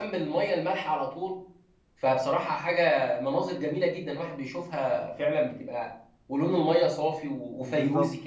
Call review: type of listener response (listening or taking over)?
taking over